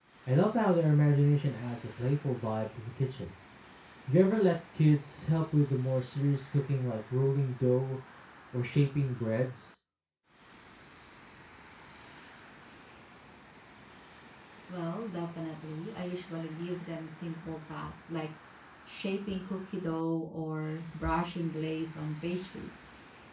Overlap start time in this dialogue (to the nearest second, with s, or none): none